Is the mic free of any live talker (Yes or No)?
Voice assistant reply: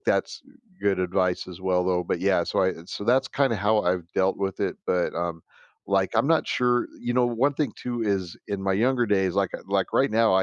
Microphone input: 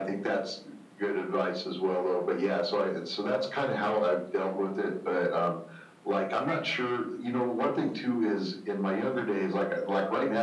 No